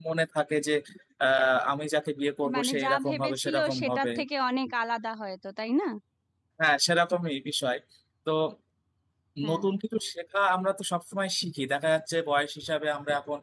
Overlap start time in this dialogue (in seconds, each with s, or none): 2.5 s